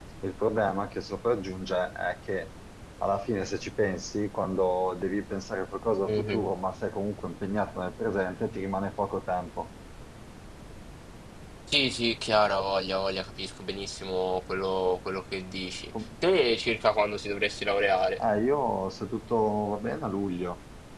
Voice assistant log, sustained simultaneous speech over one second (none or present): none